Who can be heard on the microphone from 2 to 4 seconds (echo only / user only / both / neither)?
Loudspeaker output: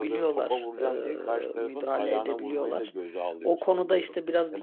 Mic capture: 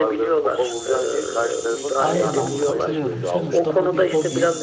both